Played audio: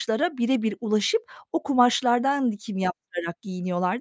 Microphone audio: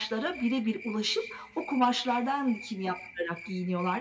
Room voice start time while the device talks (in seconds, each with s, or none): none